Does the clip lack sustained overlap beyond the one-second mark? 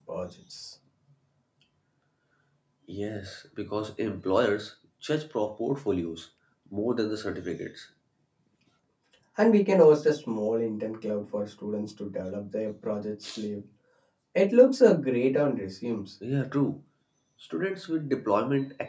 Yes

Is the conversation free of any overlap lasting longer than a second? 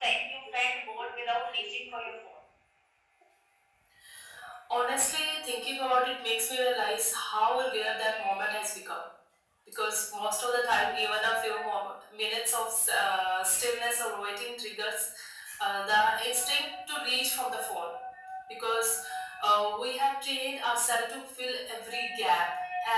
Yes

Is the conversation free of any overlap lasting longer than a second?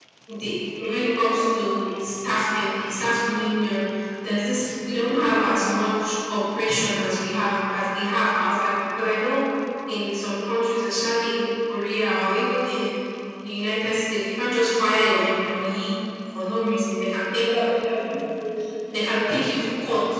Yes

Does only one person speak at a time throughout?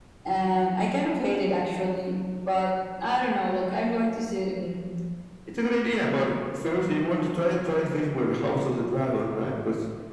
Yes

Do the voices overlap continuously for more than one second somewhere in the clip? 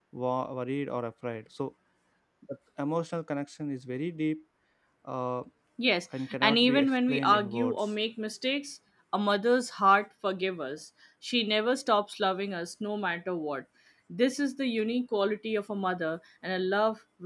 Yes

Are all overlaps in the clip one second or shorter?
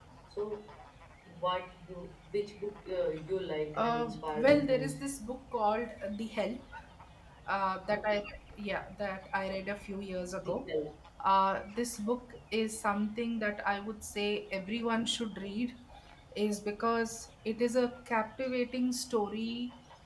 No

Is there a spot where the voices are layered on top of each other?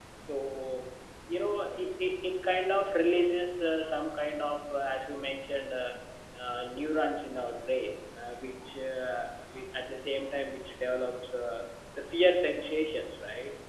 No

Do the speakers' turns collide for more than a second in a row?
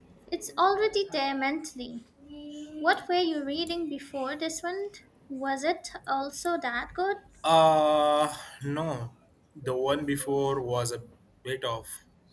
No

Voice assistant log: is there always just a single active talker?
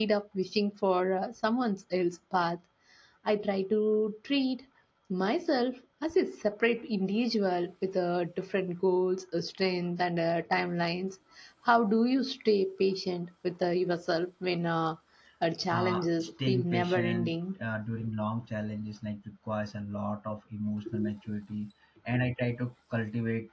No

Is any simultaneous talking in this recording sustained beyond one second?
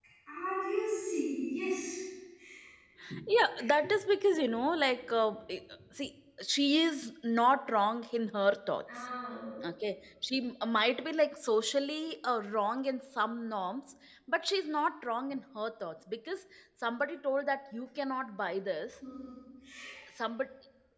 No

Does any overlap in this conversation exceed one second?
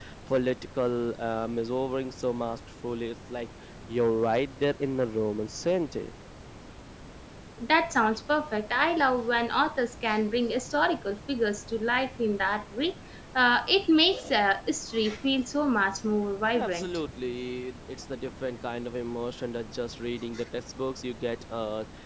No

